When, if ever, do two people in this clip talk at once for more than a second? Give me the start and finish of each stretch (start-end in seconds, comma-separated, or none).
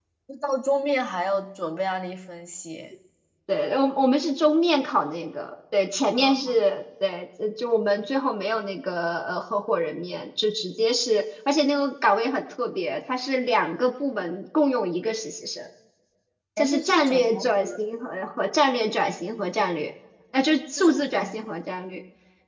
16.6-17.8